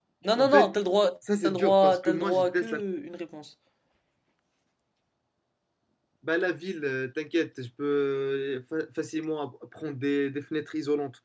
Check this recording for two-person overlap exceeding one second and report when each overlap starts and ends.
1.4-2.7

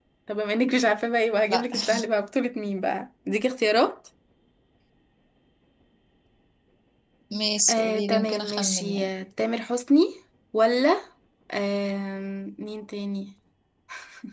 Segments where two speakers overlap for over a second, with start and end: 7.7-9.1

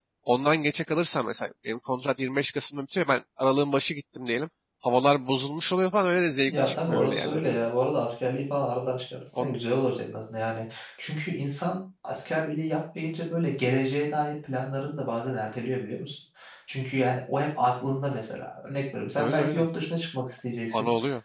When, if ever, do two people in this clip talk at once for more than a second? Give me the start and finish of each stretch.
6.5-7.7

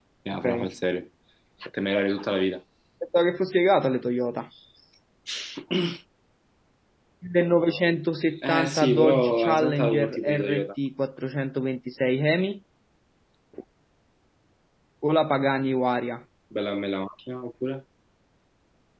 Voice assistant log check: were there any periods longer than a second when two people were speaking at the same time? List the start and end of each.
8.5-10.7

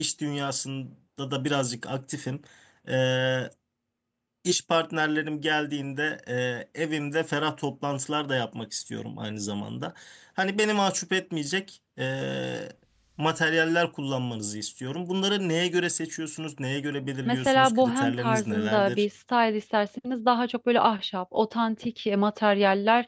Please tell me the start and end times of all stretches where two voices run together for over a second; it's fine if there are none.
17.2-19.1

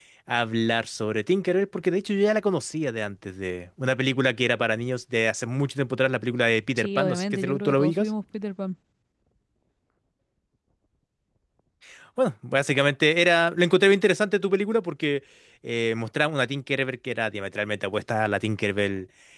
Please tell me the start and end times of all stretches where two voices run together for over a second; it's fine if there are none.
6.8-8.1

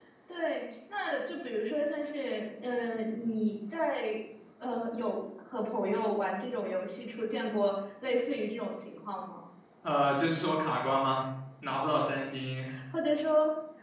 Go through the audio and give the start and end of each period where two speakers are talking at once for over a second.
none

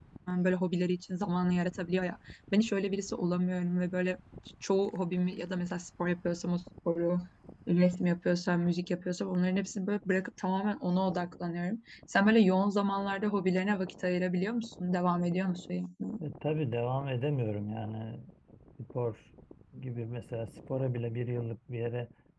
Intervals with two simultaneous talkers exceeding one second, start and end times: none

